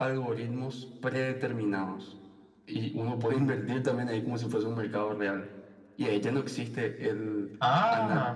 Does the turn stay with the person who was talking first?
Yes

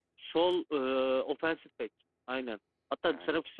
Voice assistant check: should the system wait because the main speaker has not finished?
Yes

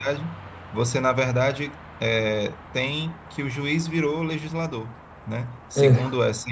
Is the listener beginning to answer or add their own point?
No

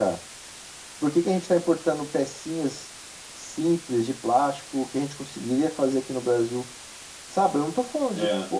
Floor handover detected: No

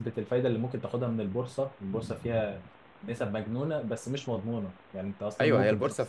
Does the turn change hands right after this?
Yes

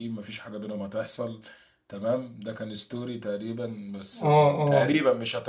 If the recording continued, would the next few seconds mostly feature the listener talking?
No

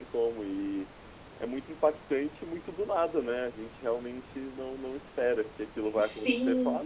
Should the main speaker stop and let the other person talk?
No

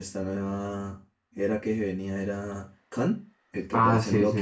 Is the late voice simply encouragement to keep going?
No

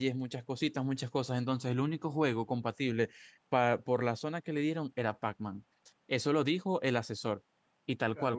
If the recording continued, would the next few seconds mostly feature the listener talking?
Yes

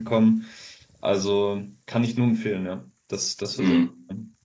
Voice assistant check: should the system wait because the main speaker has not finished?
No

